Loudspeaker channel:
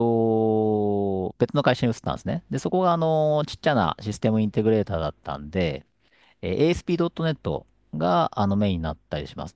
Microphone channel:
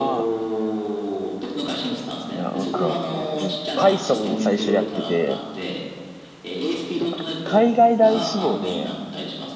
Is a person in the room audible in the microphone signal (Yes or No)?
Yes